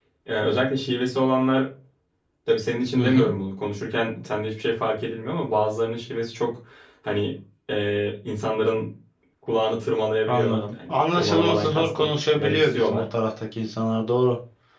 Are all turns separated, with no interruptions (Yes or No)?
No